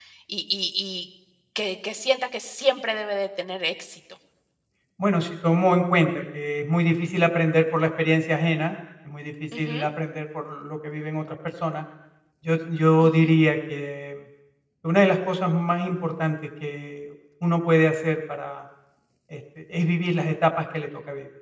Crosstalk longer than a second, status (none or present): none